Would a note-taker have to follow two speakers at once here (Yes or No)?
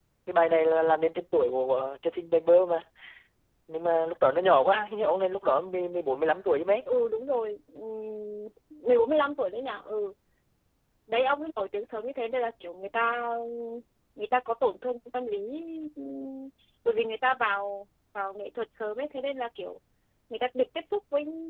No